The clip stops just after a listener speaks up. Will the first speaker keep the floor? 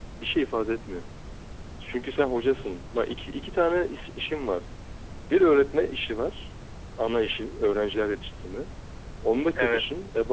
Yes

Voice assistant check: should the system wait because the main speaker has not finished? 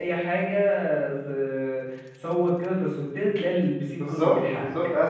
No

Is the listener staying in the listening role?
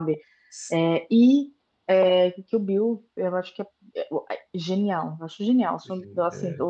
Yes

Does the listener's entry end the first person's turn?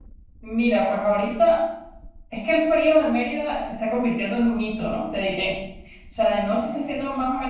No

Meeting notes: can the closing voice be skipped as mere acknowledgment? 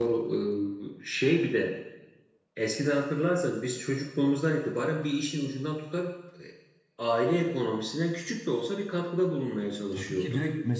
No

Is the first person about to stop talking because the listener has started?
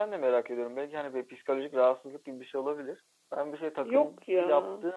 No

